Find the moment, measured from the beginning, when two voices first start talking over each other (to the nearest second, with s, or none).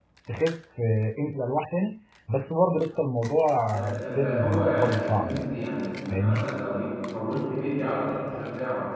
4 s